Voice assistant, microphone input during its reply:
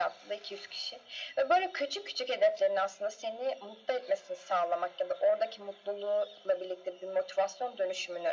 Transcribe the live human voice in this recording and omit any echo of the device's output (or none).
none